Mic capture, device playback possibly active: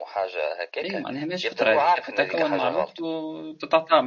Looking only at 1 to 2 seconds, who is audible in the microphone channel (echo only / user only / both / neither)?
both